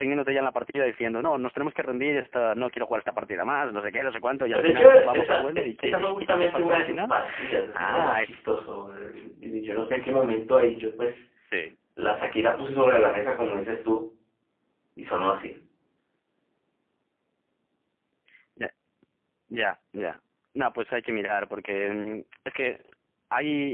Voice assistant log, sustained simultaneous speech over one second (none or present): present